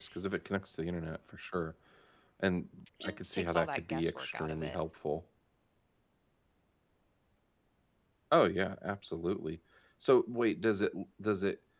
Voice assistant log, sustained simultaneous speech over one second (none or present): present